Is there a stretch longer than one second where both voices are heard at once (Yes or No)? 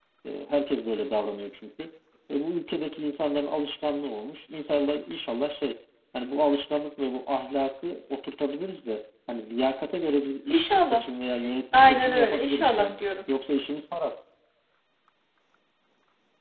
Yes